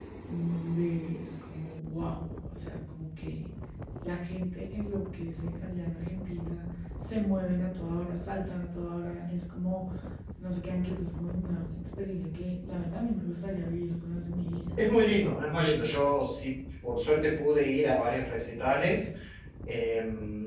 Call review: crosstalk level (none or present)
none